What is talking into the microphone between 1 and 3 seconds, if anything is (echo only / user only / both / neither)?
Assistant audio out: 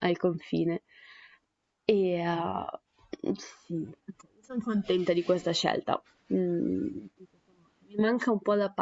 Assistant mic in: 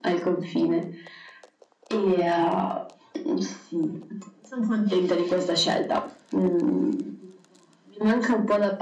echo only